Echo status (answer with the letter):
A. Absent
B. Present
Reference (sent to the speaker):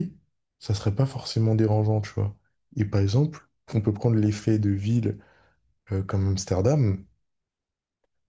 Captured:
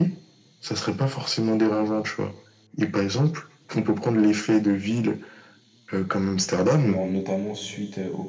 B